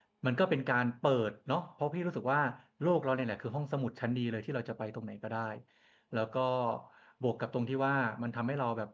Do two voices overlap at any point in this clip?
No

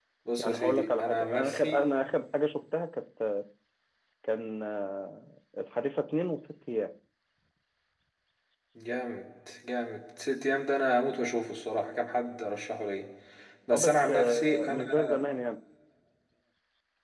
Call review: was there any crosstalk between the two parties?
Yes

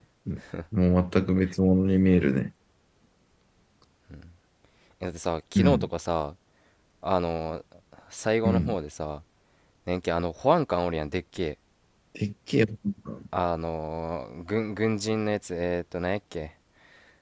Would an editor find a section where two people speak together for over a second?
No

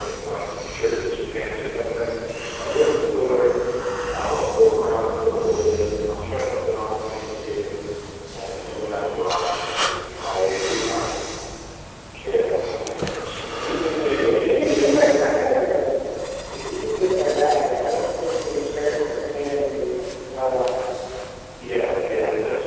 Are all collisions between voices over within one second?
No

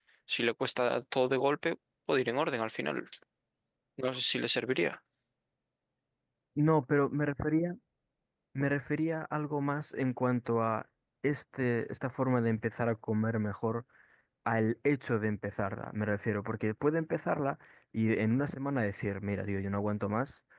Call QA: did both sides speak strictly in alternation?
Yes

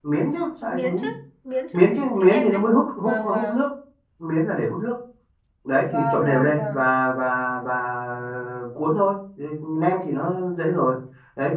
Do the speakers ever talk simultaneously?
Yes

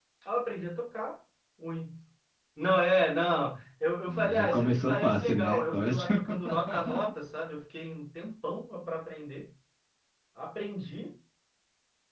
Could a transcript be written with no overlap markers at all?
No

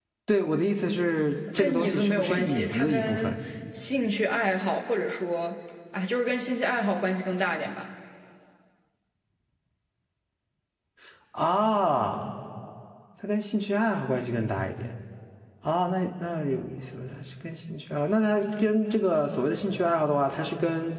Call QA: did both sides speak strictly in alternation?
No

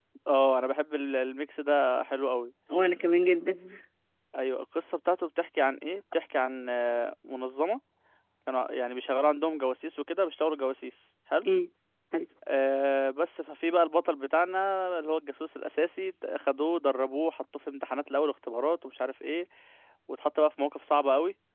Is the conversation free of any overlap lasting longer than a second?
Yes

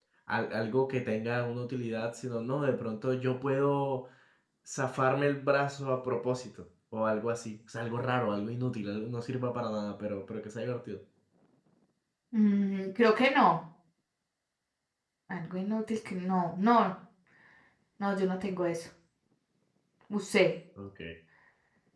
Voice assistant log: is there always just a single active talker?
Yes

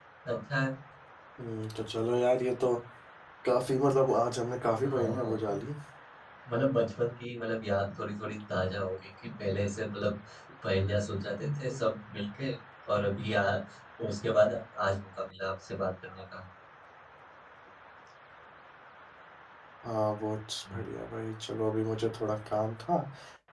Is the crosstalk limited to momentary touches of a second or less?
Yes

